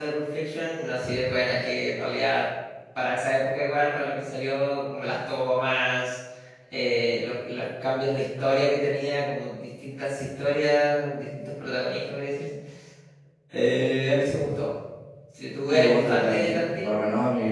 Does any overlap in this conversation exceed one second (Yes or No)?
Yes